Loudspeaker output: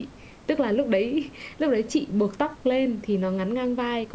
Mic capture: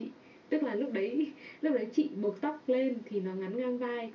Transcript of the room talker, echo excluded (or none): none